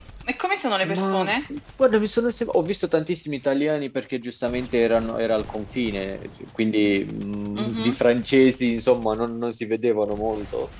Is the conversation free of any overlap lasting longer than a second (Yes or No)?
Yes